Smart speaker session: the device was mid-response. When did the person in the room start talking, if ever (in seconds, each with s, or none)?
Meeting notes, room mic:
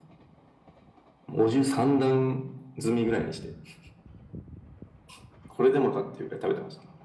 none